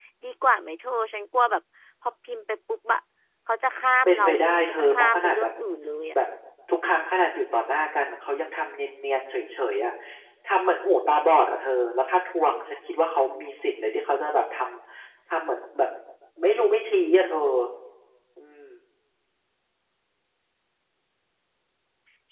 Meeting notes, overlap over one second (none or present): present